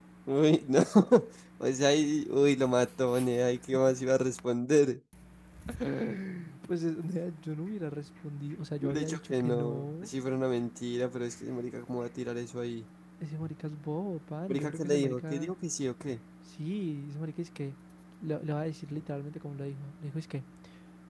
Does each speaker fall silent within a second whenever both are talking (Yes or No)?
No